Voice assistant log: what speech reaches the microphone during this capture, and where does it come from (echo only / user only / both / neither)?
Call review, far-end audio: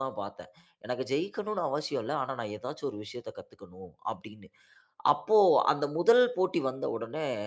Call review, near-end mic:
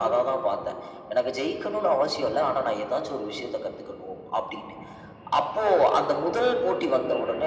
echo only